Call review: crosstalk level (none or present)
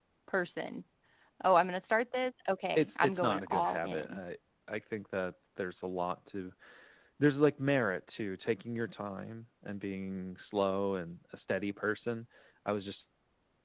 present